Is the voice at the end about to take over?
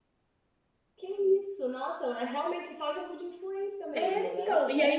Yes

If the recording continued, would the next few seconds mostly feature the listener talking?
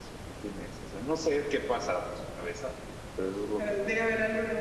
Yes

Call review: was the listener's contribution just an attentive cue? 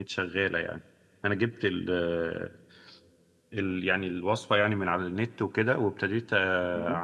Yes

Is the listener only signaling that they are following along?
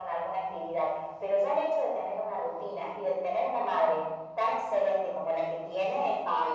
Yes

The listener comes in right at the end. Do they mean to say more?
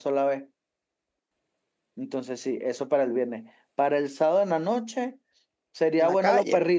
No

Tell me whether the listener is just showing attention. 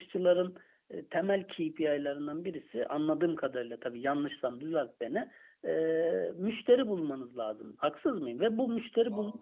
Yes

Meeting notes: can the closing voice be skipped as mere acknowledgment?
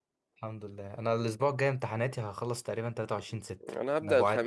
No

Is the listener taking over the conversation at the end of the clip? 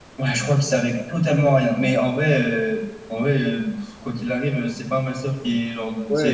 Yes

